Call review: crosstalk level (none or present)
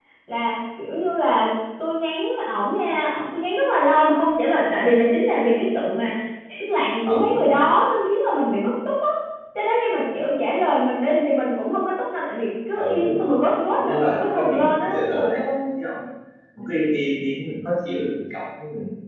present